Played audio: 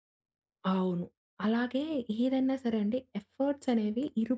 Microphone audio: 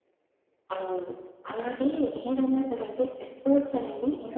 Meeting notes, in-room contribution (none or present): none